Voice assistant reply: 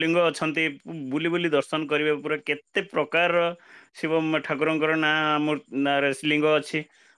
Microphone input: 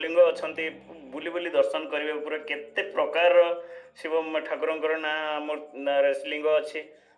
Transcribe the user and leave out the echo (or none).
none